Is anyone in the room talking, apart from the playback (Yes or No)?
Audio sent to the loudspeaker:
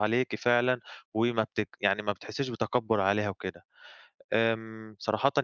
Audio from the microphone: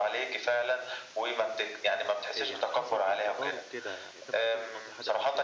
Yes